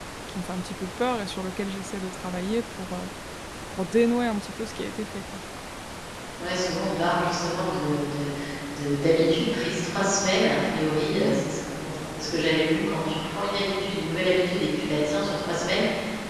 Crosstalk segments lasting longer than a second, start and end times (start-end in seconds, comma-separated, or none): none